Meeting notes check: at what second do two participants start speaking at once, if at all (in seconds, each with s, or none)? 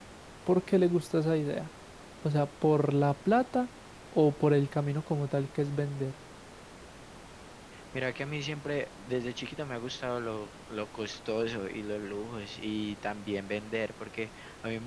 none